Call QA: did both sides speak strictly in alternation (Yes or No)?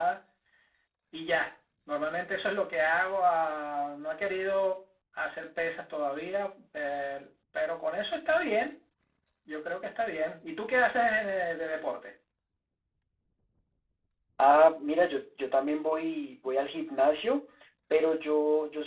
Yes